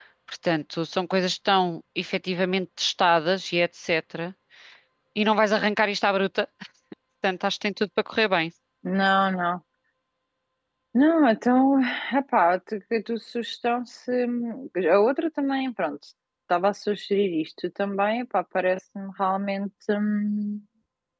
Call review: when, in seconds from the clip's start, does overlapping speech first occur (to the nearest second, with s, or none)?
none